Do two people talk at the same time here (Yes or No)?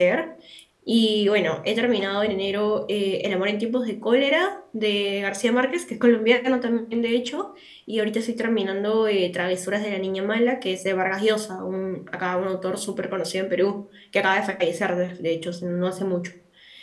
No